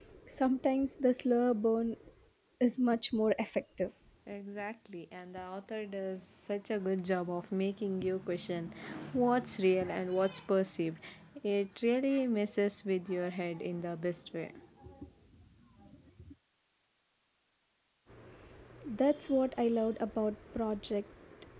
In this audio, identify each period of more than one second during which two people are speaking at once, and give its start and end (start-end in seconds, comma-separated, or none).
none